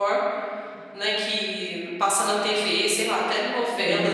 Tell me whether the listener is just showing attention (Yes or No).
Yes